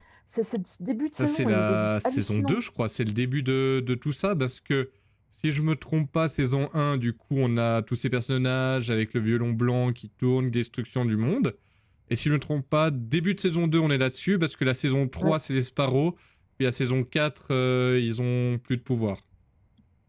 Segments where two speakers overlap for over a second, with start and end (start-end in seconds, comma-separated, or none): 1.2-2.6